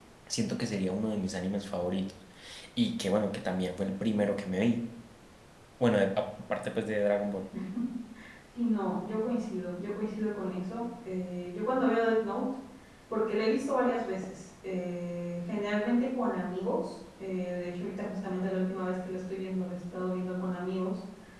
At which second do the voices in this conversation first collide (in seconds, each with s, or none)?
none